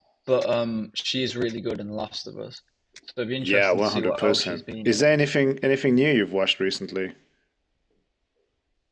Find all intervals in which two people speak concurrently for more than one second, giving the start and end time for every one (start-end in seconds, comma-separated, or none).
3.4-5.0